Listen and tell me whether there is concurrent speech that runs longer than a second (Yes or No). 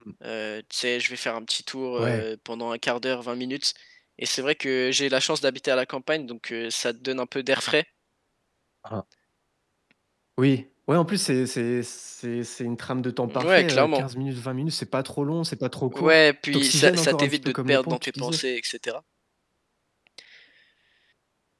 Yes